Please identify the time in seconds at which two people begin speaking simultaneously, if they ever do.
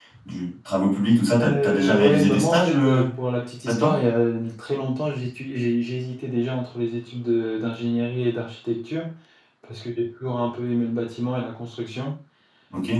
1.4 s

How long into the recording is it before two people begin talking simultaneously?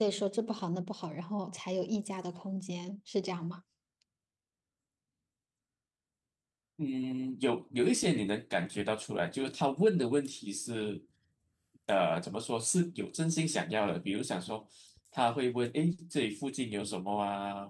none

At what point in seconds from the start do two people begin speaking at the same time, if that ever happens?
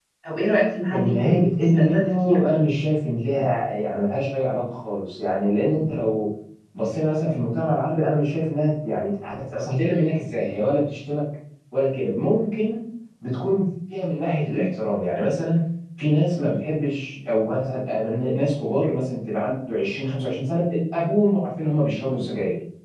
0.9 s

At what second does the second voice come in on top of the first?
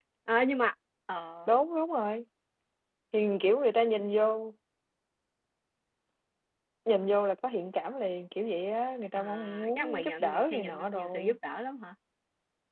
9.2 s

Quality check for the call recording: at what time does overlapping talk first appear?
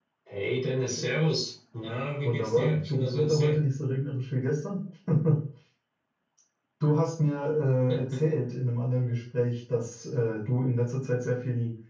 2.2 s

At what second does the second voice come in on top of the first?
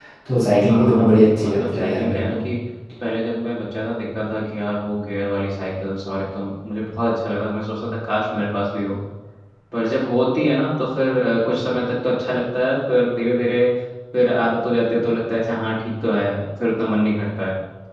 0.7 s

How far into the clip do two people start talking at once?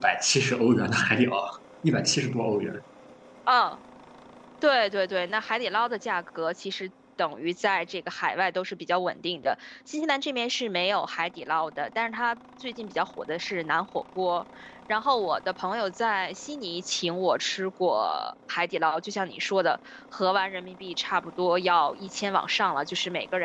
none

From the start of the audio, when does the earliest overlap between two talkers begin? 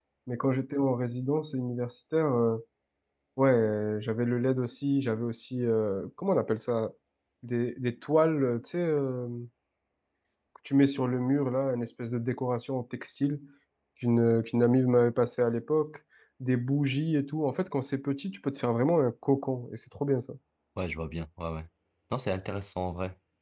none

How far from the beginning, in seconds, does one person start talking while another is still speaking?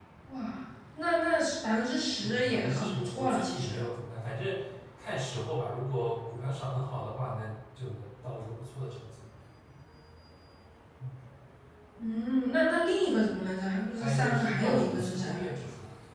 2.2 s

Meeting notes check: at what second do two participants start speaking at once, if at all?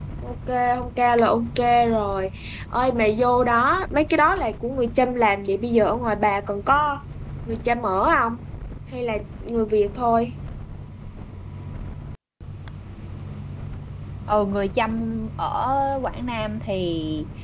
none

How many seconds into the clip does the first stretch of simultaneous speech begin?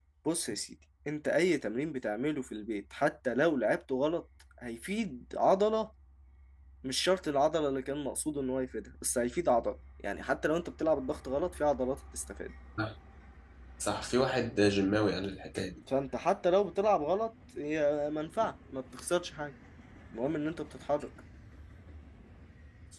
none

